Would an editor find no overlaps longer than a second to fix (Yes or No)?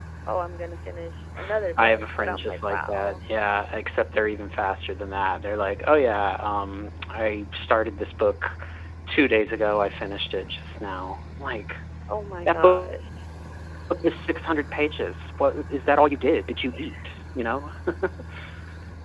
No